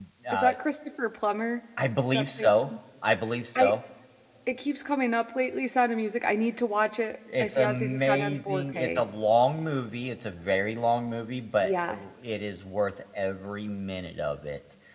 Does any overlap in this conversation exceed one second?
Yes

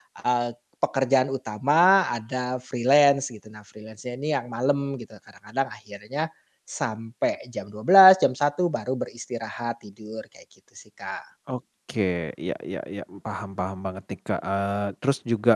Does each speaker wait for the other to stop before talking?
Yes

